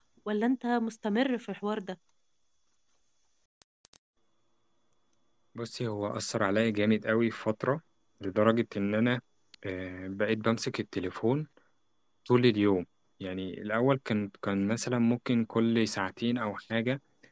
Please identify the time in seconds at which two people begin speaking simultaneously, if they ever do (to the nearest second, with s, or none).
none